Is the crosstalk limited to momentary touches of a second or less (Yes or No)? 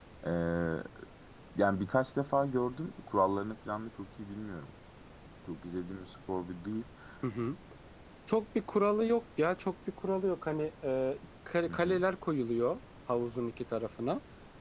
Yes